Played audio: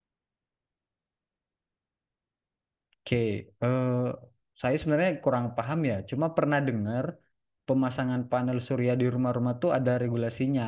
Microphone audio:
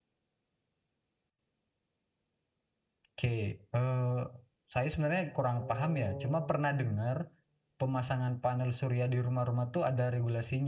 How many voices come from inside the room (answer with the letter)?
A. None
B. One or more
B